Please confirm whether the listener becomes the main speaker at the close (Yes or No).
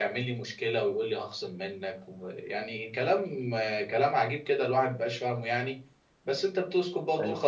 No